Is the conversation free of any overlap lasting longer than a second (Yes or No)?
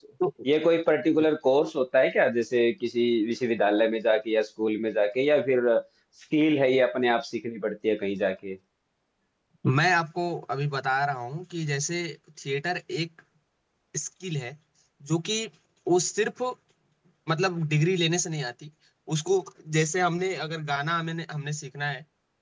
Yes